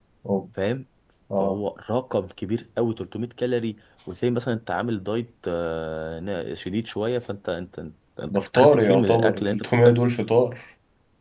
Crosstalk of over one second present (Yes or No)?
Yes